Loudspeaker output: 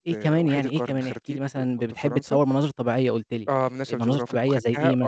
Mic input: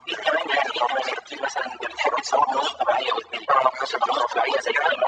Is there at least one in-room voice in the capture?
No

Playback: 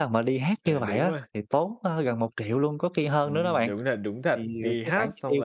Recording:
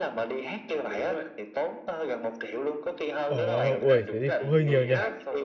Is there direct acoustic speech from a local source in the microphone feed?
Yes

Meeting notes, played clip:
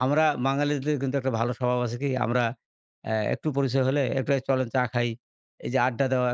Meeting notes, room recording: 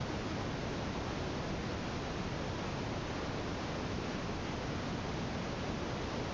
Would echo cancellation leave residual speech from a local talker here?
No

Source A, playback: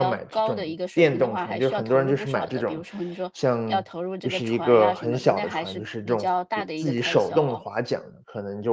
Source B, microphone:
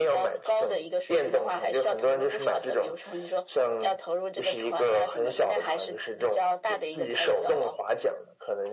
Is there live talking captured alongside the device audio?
No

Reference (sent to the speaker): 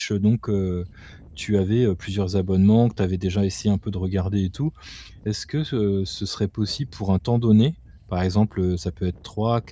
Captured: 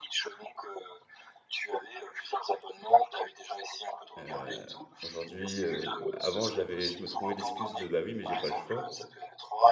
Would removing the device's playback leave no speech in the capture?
No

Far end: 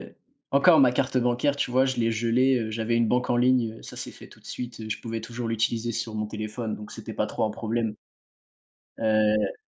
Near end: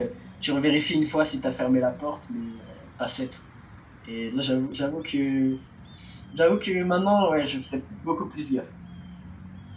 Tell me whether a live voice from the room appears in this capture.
Yes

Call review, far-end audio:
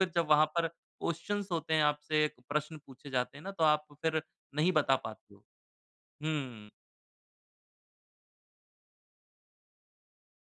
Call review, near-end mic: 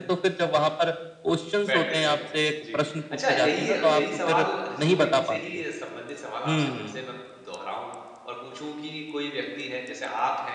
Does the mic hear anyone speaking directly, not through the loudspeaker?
Yes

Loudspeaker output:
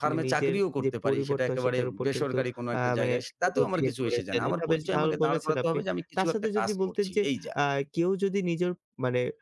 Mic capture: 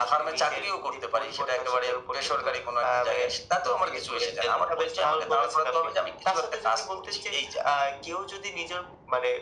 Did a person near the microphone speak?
No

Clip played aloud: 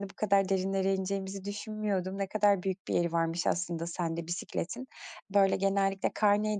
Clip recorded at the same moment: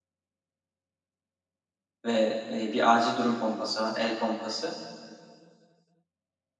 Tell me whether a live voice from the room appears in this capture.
Yes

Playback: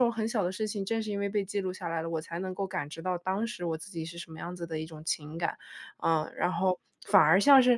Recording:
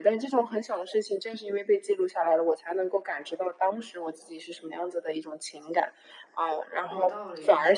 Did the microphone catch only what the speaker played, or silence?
No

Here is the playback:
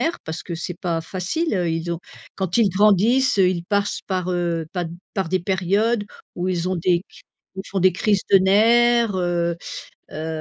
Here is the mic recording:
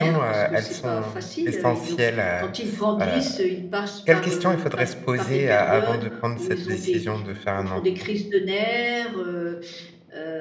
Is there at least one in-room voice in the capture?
Yes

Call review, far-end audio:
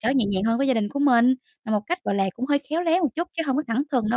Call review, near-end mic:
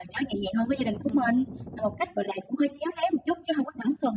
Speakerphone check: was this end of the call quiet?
No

